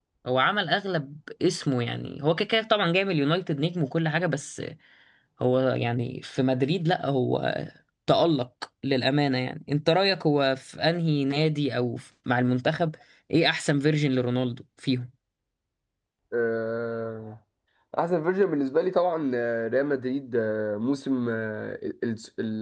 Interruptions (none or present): none